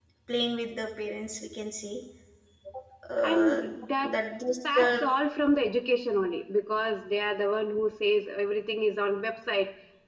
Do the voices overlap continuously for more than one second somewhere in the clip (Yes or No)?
No